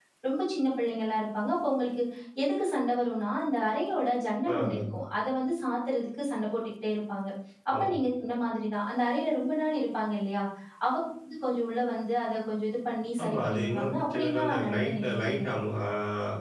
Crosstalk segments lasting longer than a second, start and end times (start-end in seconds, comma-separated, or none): 13.2-15.5